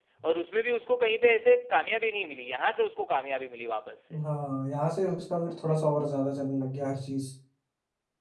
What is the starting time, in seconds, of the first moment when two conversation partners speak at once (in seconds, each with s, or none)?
none